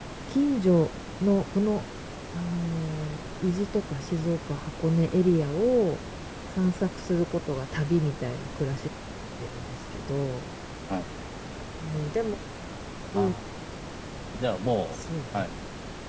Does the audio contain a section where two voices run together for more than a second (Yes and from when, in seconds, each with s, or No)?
No